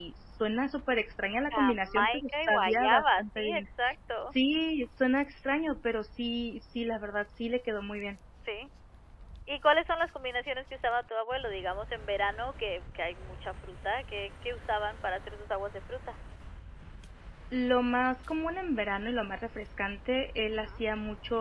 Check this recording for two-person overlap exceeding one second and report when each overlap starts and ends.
1.5-3.7

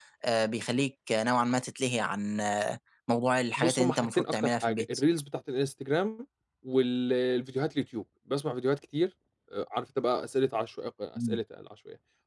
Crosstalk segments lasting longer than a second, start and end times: 3.6-4.8

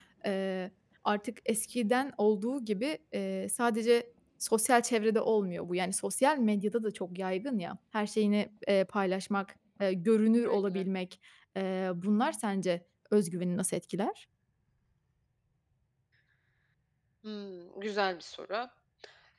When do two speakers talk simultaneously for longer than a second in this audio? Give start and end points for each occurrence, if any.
none

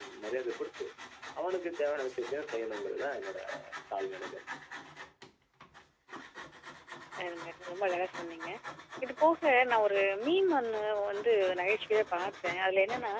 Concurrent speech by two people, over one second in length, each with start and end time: none

